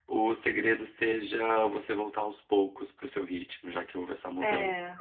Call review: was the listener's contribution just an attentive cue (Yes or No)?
Yes